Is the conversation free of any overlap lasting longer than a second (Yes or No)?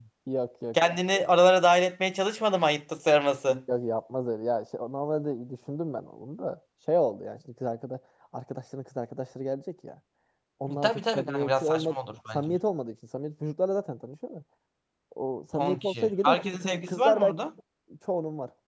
No